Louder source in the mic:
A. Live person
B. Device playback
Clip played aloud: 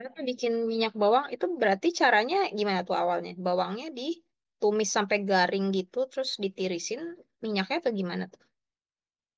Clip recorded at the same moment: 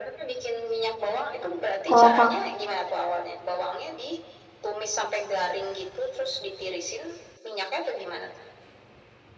A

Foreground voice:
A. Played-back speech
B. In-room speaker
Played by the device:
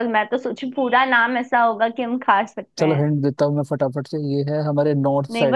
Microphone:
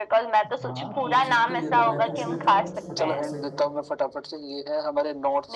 A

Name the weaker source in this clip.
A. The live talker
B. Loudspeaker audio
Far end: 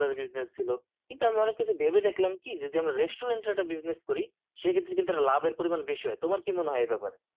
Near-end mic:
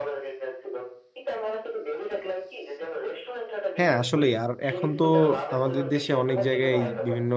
B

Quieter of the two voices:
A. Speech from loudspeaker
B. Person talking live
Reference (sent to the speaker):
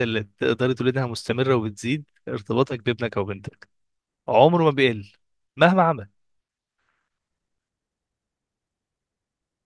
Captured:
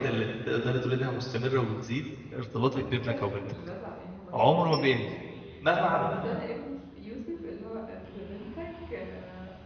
B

